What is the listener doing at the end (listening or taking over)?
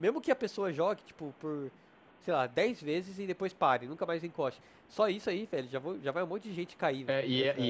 taking over